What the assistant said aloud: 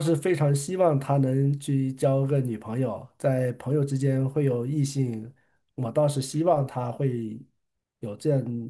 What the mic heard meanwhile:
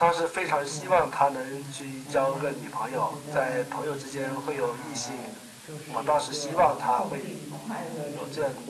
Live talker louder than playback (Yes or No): No